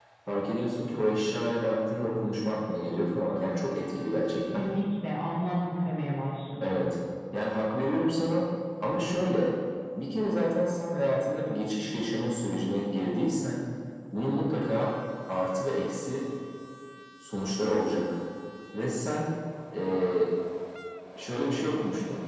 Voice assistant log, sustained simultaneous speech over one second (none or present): none